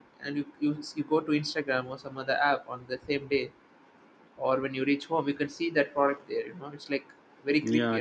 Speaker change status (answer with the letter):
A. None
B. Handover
B